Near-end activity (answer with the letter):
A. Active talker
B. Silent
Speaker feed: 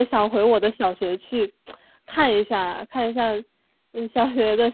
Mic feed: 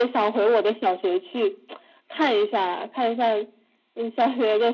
B